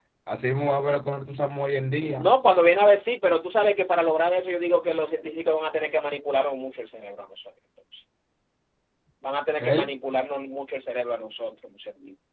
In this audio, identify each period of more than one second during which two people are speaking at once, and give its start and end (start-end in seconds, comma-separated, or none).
none